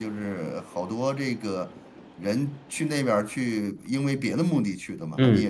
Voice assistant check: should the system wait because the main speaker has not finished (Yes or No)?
No